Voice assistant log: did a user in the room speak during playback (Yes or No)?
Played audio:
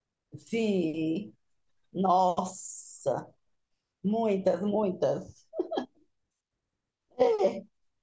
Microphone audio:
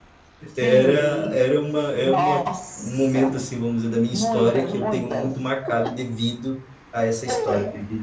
Yes